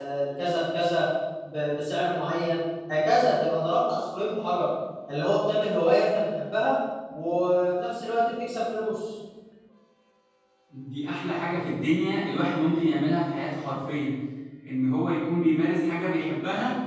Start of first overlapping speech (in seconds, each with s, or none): none